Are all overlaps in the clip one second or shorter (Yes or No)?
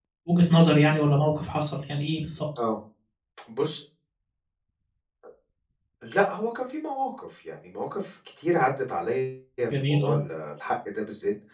Yes